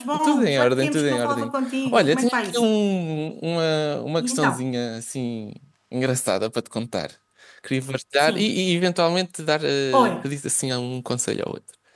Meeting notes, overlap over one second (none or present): present